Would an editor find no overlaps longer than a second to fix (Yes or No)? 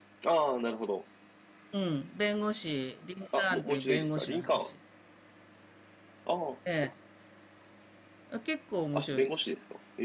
No